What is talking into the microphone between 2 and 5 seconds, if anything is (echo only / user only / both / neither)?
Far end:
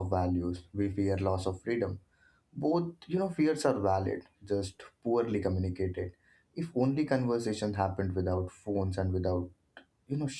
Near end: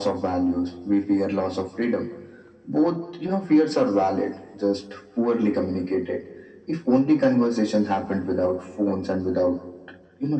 echo only